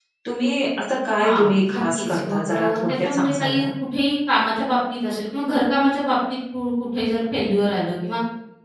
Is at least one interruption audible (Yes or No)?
Yes